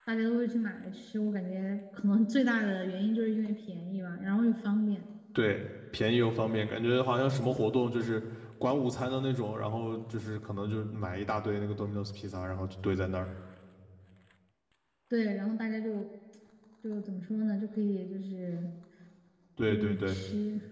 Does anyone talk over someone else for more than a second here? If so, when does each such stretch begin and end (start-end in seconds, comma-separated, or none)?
none